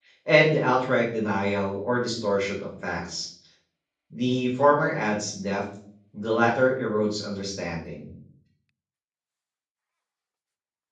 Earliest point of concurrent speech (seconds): none

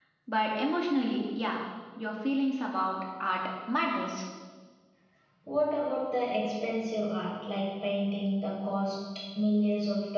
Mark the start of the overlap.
none

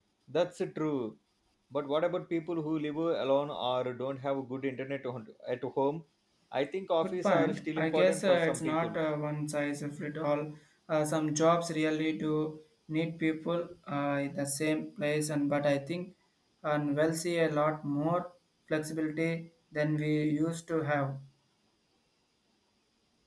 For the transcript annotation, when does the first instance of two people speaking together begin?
7 s

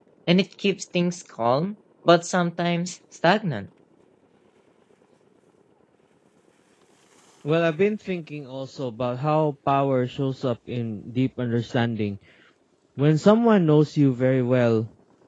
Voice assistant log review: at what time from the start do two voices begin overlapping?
none

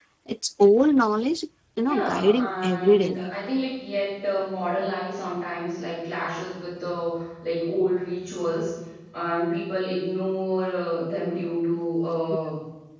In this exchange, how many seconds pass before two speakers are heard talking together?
2 s

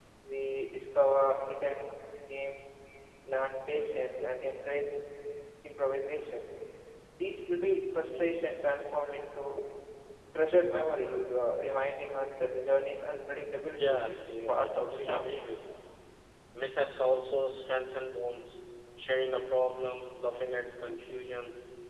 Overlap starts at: 14 s

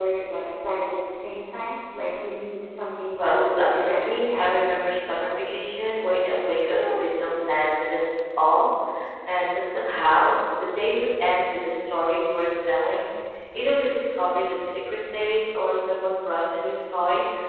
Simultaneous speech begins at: 3 s

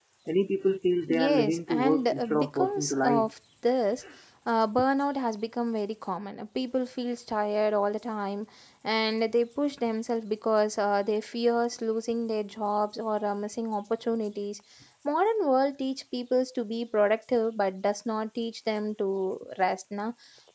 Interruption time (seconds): 1 s

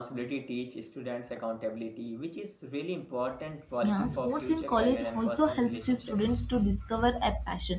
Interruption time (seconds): 4 s

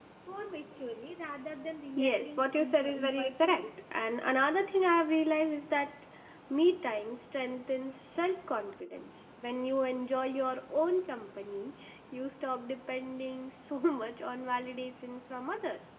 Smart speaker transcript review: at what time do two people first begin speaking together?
2 s

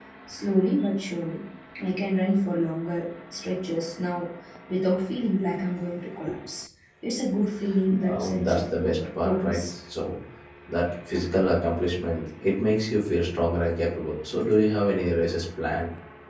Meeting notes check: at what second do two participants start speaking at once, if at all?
8 s

